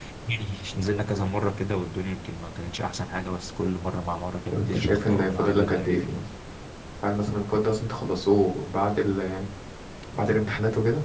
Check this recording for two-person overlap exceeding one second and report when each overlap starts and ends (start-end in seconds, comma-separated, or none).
4.5-6.2